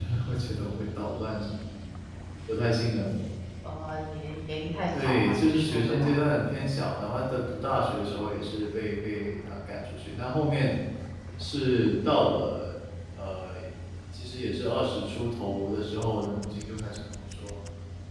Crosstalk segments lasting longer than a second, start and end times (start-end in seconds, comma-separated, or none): 5.0-6.2